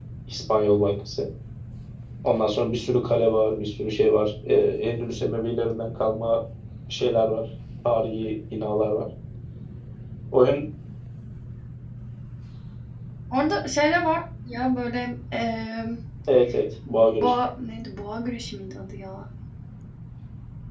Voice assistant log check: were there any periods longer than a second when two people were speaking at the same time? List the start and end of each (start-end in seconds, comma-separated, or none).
none